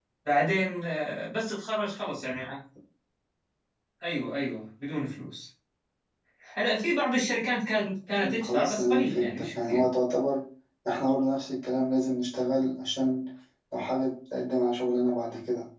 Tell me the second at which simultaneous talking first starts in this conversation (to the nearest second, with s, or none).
8 s